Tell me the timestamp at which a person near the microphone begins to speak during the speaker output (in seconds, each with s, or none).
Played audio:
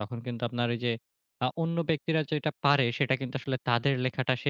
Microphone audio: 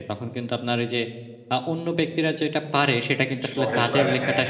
3.5 s